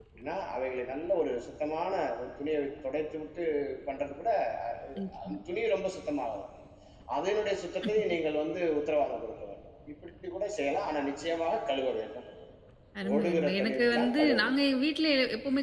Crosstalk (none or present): present